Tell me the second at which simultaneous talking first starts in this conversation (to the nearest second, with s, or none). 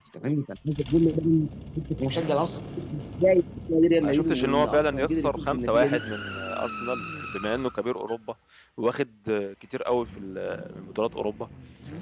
4 s